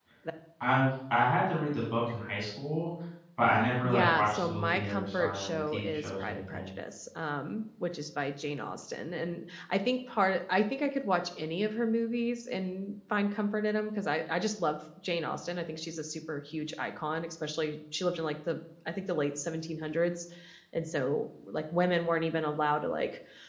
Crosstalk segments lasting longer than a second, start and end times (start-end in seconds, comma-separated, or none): 3.9-6.7